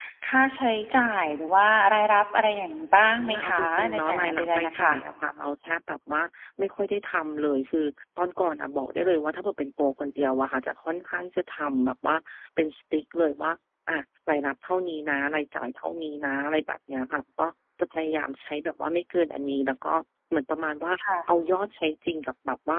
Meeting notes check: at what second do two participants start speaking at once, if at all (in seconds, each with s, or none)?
3.2 s